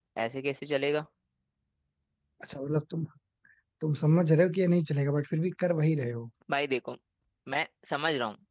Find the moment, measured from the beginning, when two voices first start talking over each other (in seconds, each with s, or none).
none